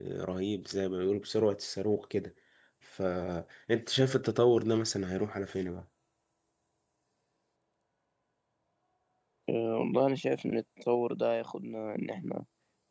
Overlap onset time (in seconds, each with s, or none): none